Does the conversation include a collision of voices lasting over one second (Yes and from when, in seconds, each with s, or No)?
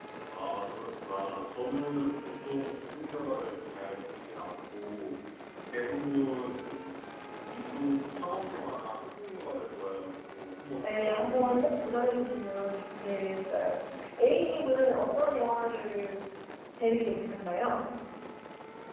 Yes, from 10.8 s